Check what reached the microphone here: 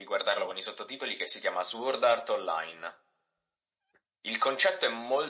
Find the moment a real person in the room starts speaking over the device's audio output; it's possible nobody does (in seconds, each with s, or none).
none